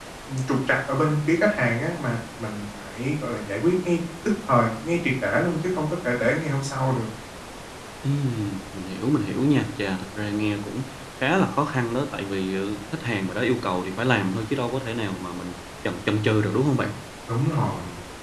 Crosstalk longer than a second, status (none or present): none